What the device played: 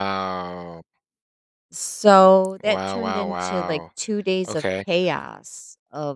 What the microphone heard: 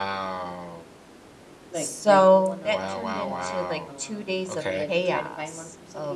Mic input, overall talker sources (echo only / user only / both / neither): both